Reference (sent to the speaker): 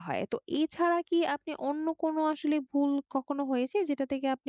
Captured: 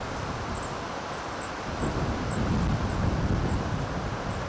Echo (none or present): none